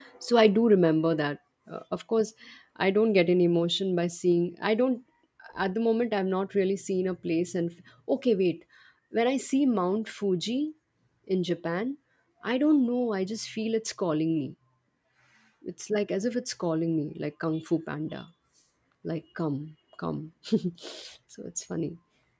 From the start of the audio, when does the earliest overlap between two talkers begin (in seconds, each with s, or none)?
none